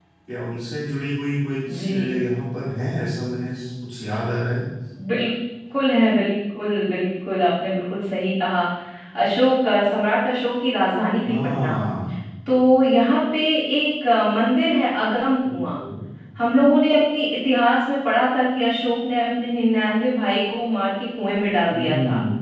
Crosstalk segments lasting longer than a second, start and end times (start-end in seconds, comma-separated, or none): none